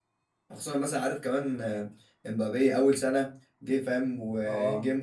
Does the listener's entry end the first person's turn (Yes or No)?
No